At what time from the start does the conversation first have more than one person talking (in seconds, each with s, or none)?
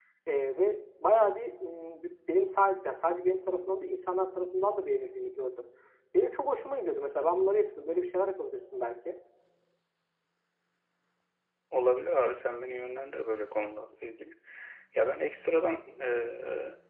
none